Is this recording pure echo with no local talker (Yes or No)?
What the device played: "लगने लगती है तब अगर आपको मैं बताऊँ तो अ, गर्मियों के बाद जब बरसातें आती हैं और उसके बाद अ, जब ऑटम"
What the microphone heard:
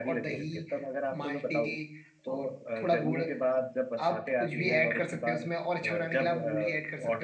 No